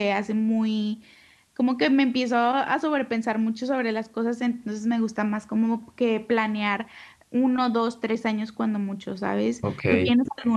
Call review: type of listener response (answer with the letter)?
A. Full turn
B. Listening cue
B